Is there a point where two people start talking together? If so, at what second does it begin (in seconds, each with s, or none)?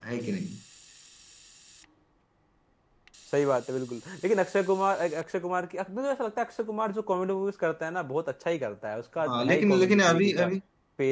9.2 s